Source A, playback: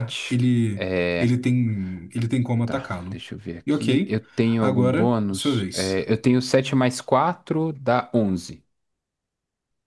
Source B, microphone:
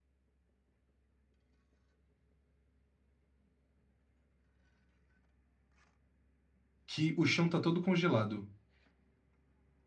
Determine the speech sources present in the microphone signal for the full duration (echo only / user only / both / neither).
user only